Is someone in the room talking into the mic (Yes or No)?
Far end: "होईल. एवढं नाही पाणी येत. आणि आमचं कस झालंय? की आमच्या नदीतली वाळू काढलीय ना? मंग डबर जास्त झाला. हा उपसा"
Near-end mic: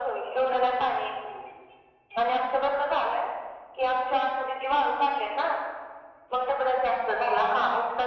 No